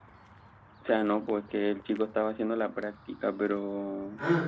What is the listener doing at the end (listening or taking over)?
taking over